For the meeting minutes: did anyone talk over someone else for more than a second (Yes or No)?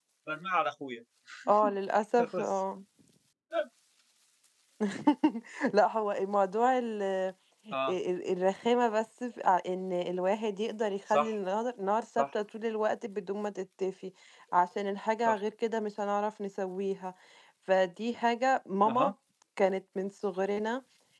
No